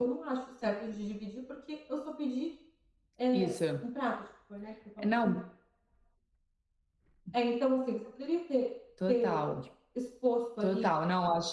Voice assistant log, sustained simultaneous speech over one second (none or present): none